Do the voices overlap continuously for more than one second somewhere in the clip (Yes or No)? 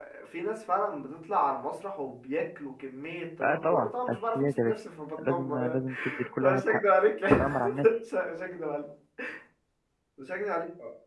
Yes